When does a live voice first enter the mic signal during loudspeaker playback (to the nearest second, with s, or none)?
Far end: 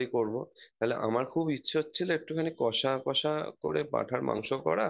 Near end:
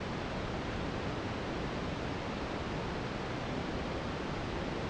none